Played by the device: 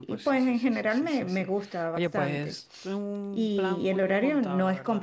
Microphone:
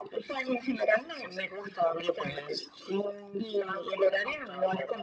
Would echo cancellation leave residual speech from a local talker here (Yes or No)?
No